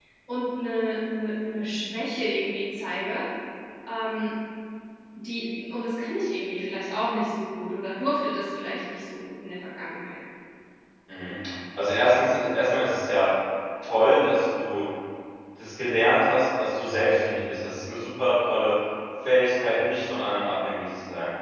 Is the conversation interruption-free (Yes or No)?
Yes